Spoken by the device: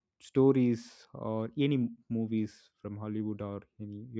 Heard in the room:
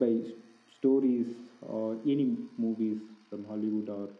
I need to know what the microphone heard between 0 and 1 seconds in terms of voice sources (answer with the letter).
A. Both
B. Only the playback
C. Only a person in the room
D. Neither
B